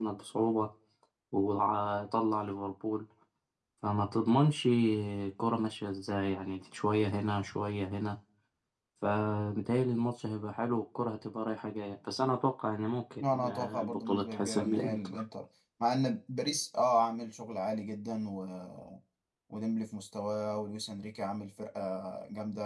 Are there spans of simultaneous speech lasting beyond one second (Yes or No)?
Yes